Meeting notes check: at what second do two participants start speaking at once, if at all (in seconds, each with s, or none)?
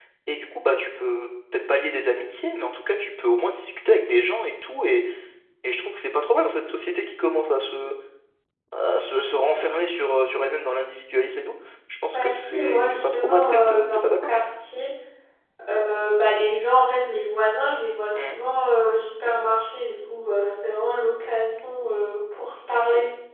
12.1 s